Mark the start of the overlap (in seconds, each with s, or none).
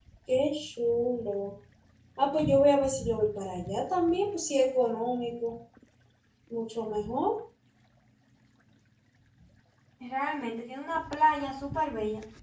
none